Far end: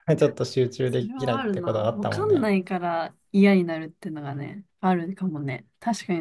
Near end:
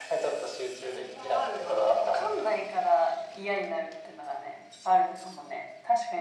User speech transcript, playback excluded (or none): none